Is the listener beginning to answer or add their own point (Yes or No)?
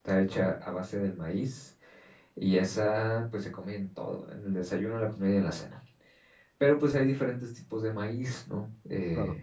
No